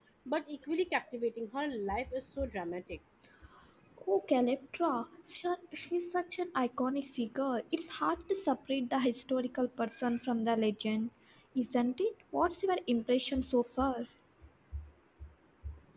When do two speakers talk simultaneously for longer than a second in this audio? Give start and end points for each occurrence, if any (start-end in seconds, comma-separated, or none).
none